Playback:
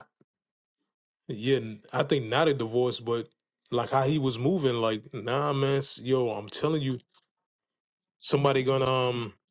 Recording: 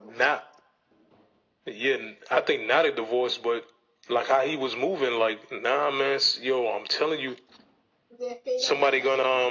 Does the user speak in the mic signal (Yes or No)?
Yes